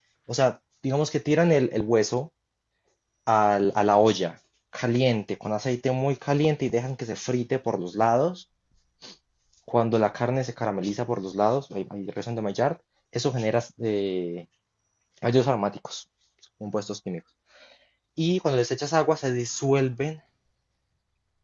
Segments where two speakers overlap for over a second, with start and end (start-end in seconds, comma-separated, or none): none